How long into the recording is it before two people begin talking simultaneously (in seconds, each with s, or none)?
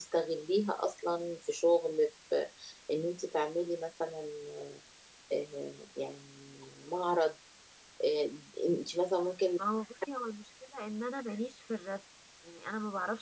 none